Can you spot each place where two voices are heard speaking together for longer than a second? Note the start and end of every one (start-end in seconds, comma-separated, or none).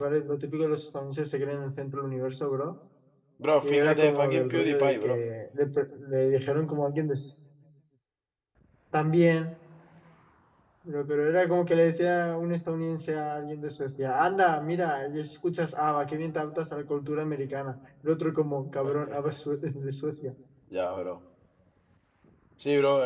3.6-5.2